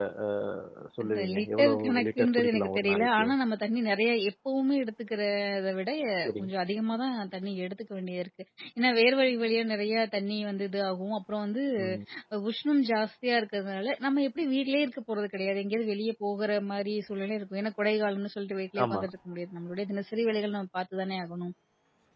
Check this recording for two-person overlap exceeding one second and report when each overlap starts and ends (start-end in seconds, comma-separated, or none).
1.0-3.3